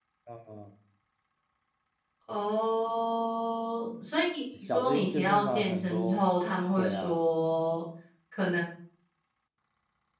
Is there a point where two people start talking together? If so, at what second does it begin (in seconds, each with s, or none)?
4.7 s